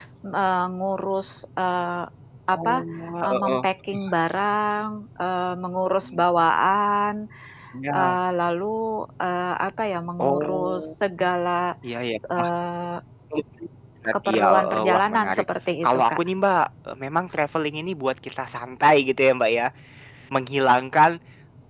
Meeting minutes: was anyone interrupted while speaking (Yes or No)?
Yes